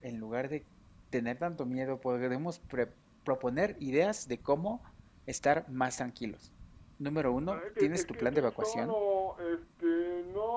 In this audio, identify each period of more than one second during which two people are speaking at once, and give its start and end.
7.5-9.0

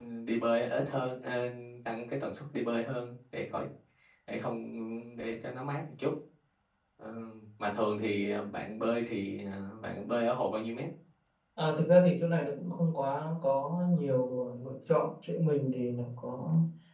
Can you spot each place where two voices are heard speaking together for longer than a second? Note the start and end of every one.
none

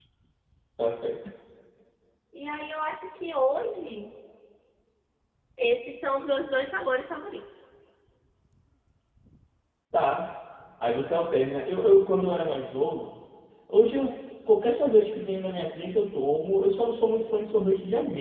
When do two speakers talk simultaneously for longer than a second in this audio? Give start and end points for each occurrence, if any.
none

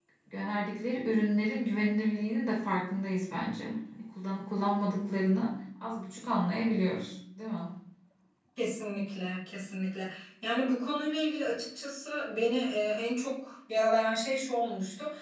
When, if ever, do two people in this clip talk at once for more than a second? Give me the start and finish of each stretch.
none

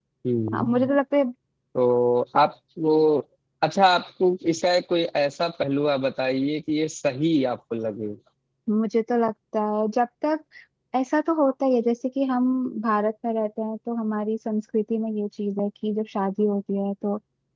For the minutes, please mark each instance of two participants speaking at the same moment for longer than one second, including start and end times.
none

